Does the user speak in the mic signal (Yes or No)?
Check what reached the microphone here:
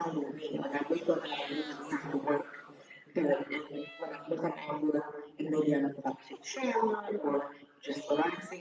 No